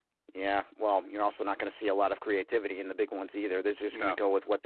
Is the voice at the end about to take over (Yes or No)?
No